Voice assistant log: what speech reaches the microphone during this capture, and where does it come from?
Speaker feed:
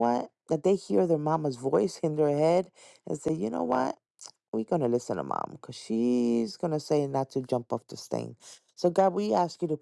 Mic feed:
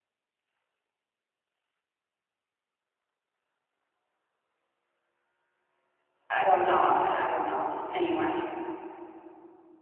user only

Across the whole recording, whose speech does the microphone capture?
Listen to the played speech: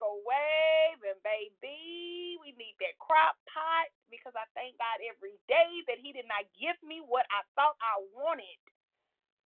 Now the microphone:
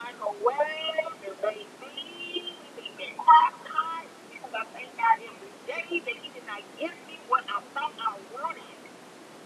echo only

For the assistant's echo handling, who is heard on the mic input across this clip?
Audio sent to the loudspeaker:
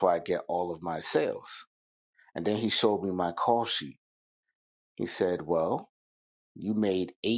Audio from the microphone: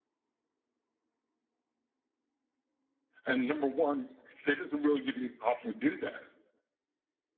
user only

